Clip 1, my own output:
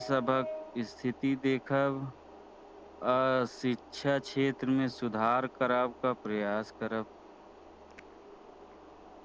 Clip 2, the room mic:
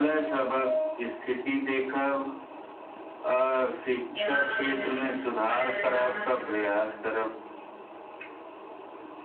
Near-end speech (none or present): present